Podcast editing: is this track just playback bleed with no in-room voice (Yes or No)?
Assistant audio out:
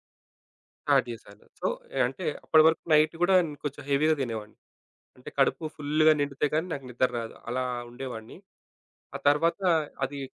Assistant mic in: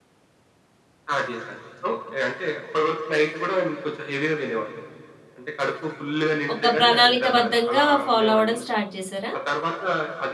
No